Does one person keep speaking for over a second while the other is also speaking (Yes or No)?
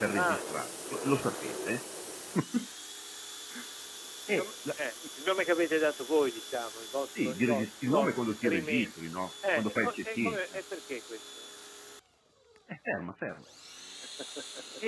Yes